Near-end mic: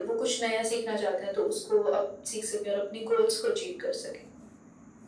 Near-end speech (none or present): none